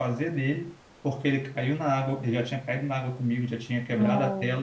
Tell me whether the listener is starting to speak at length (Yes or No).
No